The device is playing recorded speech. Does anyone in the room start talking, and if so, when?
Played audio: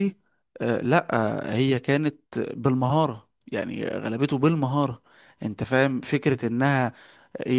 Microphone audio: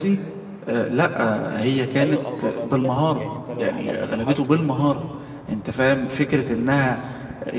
2.0 s

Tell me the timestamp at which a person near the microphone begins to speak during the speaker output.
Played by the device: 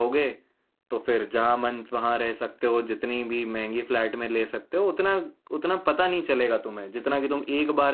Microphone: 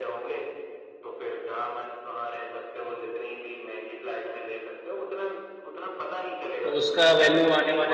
6.6 s

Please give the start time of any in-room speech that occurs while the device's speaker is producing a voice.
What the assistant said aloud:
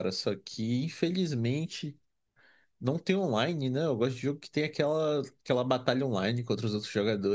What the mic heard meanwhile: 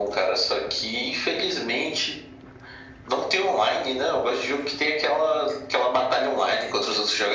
none

